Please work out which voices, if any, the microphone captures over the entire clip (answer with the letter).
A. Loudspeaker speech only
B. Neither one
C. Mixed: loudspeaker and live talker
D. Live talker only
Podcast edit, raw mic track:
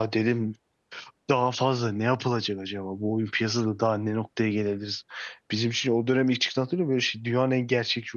D